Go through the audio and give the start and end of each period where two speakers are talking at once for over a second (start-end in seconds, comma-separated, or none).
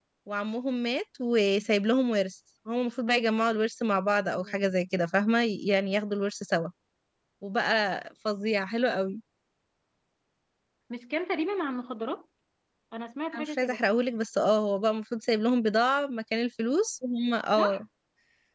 none